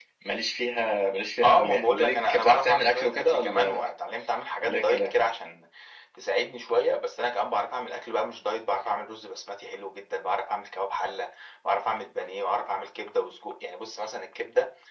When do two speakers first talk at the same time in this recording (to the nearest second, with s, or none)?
1 s